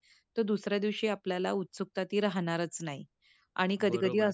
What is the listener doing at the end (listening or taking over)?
taking over